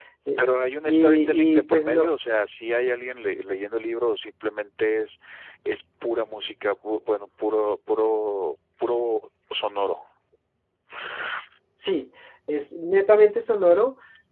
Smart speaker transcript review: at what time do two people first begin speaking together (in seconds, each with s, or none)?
0.9 s